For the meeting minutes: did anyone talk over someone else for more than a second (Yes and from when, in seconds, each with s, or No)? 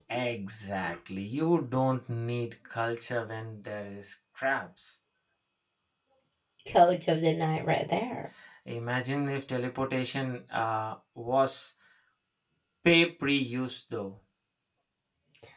No